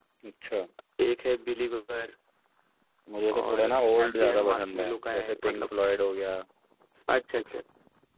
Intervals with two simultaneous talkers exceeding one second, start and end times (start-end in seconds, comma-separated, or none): 3.4-5.7